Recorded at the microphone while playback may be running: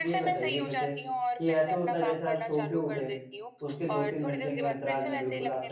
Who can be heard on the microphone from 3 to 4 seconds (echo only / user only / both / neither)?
both